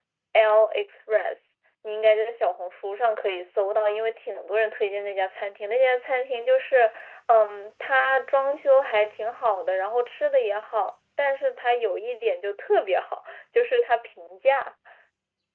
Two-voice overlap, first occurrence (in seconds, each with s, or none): none